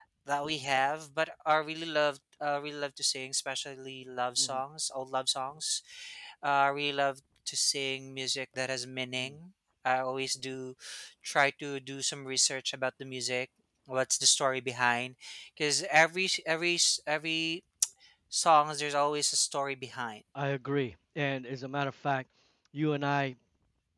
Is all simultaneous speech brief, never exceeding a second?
Yes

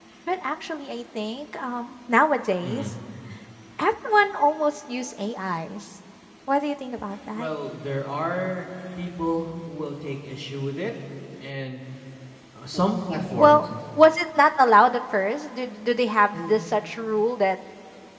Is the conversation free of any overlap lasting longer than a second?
Yes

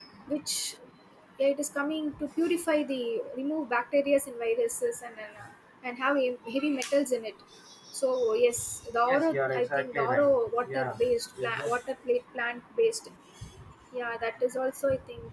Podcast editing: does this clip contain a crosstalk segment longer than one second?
Yes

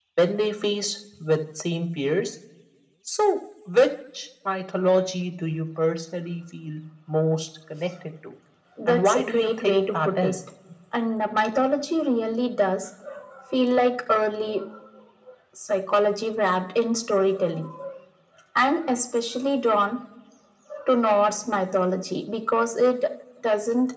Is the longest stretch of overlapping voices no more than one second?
No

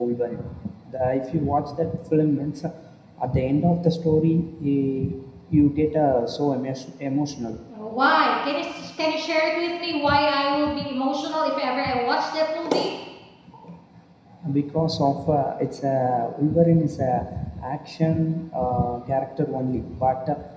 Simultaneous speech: No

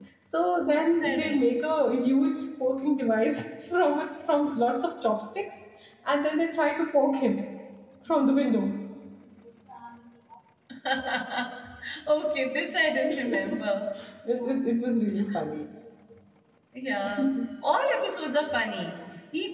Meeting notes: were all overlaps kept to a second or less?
Yes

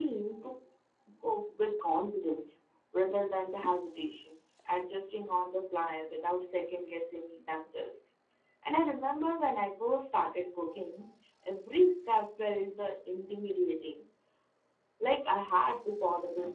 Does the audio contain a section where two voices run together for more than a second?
No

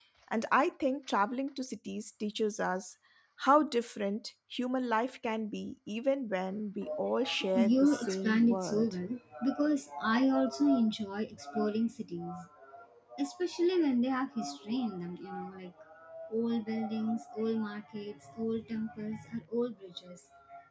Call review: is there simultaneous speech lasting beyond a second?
Yes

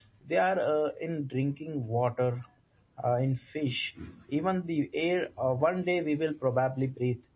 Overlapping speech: No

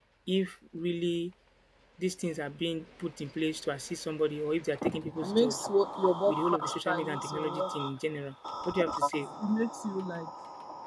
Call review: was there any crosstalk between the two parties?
Yes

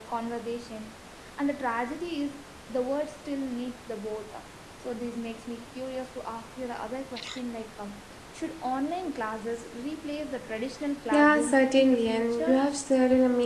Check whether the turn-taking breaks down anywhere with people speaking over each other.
Yes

